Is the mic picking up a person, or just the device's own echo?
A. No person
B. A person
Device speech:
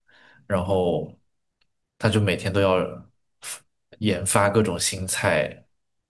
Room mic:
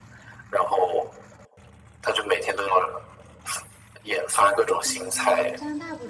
B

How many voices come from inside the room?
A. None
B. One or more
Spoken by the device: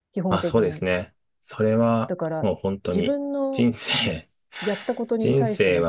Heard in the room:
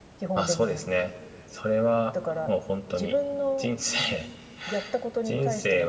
B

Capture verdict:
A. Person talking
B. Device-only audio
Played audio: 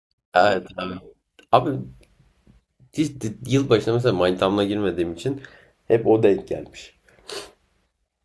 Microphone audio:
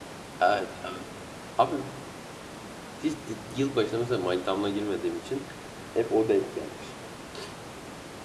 B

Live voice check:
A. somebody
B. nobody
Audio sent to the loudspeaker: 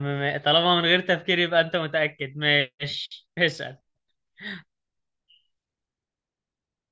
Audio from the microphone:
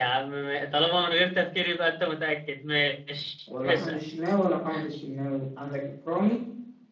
A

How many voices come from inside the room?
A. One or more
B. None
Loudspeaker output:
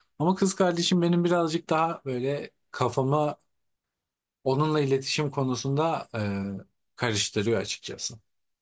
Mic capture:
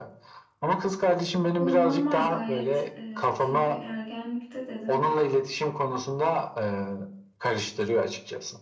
A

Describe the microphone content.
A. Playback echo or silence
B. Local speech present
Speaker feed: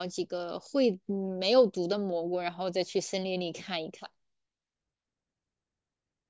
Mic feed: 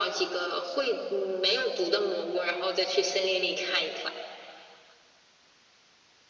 A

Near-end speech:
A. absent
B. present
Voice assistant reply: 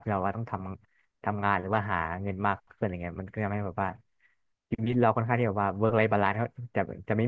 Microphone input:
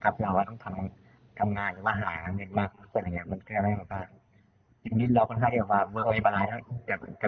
A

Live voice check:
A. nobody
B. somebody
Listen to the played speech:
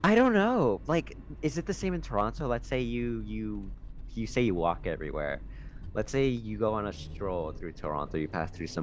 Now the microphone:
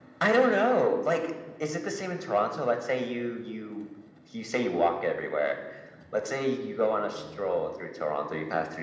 A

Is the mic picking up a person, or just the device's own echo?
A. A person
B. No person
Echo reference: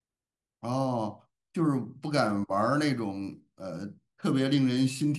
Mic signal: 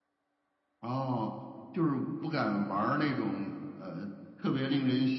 B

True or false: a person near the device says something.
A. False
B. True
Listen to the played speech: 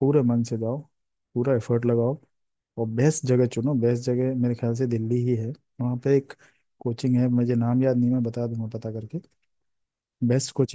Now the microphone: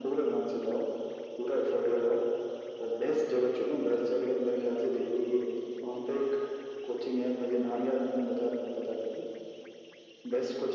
A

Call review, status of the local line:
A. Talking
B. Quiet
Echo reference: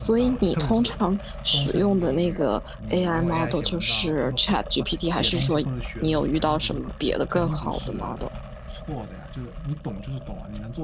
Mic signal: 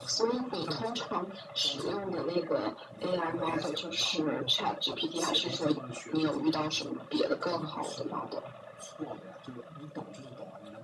B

